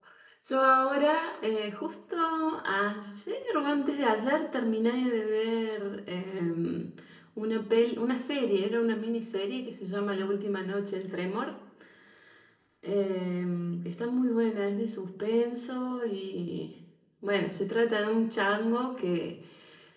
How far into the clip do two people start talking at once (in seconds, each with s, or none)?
none